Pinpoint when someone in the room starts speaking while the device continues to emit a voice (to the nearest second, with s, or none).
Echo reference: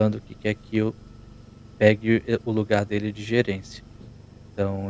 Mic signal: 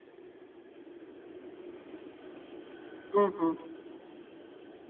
3 s